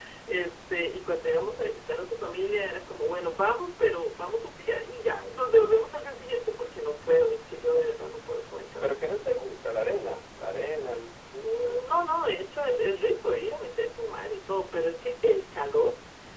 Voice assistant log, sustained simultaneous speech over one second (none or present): none